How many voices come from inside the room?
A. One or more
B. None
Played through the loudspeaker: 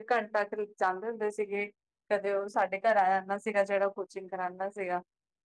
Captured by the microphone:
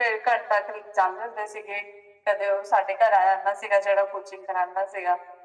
B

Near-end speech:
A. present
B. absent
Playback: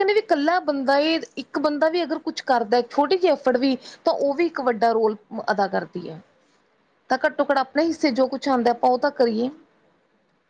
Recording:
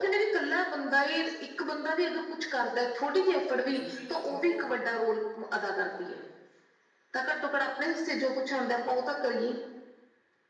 A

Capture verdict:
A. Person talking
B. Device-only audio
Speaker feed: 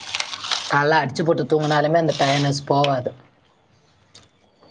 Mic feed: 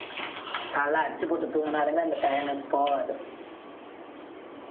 B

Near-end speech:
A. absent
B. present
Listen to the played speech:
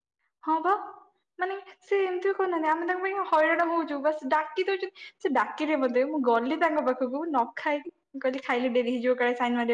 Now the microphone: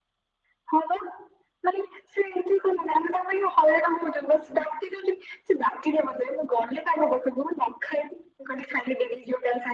A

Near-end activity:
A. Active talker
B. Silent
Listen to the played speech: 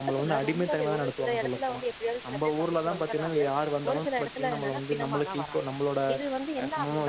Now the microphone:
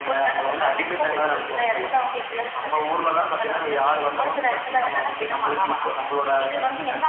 B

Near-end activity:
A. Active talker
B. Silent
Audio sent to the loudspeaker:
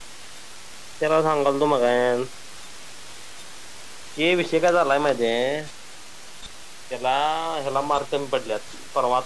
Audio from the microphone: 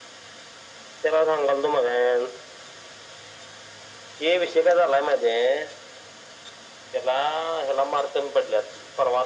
B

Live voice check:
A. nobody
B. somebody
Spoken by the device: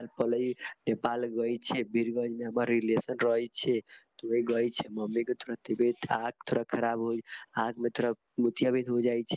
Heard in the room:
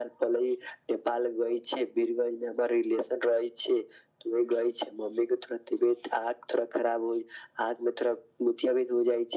A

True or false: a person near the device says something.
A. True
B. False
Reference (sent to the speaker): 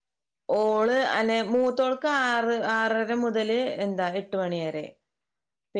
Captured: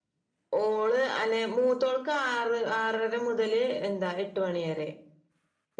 B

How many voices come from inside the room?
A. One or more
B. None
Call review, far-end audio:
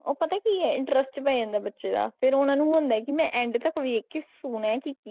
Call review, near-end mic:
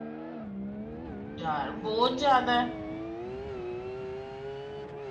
A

